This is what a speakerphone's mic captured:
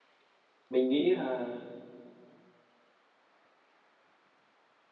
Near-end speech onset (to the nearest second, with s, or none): 1 s